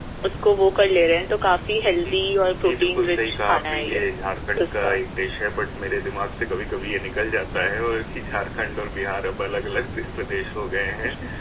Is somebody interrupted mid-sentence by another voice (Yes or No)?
Yes